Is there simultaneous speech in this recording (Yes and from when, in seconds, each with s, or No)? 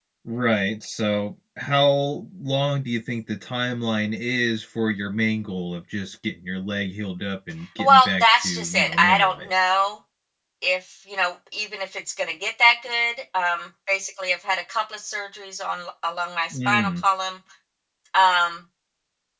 Yes, from 7.8 s